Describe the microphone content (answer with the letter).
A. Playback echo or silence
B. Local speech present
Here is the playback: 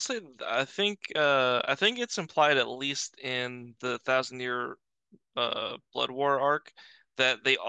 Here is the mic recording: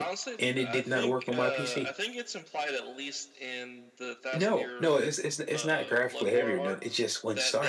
B